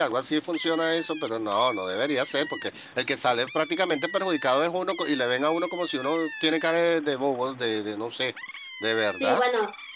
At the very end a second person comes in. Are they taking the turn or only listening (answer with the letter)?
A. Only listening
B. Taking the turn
B